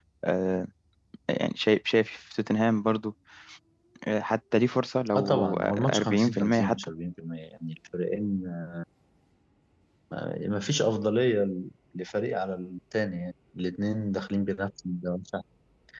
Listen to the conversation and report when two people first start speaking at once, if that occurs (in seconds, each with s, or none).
5.2 s